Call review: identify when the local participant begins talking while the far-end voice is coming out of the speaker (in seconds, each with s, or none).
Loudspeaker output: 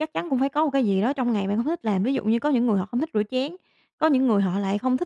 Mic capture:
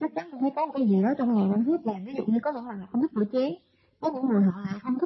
none